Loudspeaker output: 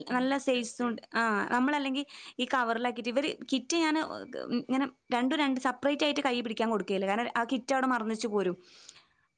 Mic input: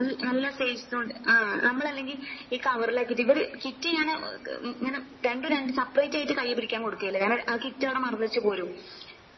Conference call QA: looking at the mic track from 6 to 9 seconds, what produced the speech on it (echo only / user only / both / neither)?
echo only